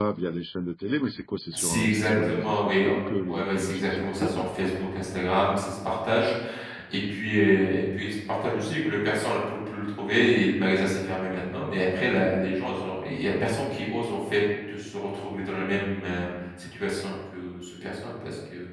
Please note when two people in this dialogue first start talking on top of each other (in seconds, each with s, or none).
1.5 s